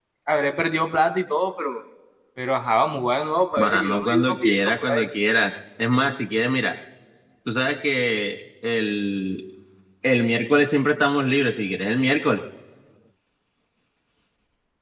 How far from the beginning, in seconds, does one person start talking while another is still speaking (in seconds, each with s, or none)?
3.6 s